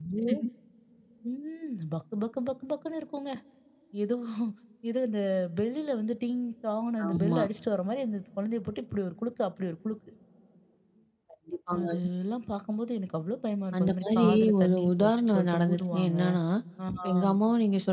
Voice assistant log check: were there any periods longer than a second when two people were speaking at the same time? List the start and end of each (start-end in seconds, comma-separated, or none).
13.8-16.2